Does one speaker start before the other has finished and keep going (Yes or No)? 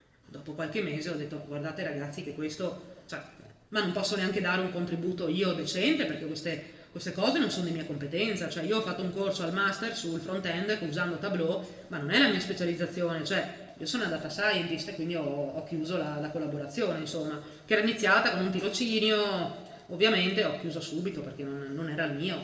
No